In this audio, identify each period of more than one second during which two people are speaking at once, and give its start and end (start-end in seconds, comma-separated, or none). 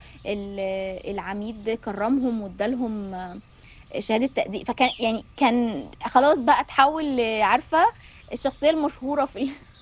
none